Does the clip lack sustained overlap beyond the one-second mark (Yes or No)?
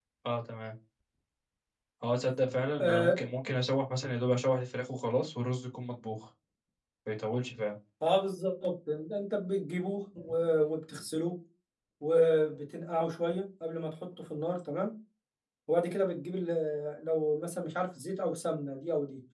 Yes